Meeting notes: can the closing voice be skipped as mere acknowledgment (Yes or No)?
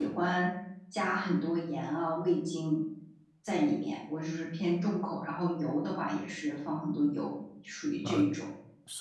No